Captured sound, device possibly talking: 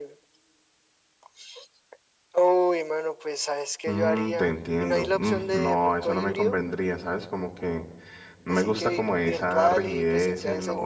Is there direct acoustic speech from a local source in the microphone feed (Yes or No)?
Yes